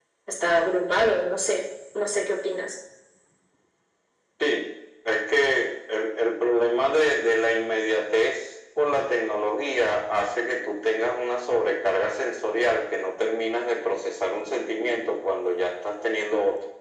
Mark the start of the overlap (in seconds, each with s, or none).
none